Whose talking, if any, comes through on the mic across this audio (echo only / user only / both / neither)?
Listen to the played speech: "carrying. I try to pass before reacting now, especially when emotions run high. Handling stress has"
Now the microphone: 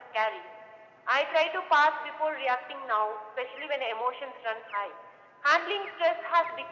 echo only